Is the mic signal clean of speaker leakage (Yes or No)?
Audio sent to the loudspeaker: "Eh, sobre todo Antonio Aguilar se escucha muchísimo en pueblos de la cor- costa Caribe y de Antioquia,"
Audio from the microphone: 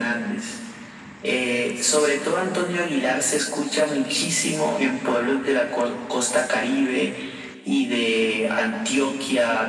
No